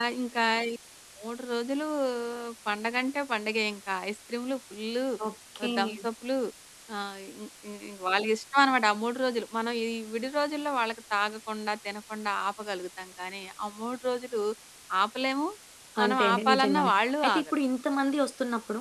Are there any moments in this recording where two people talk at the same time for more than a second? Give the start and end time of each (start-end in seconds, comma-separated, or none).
16.0-17.4